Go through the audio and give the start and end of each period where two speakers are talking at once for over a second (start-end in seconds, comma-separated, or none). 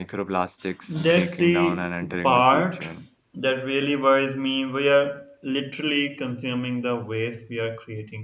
0.9-2.9